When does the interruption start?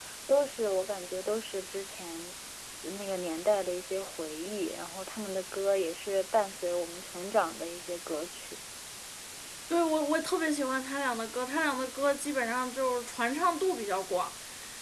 none

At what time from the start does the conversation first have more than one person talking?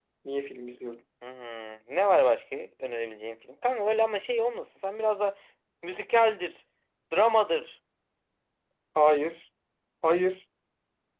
none

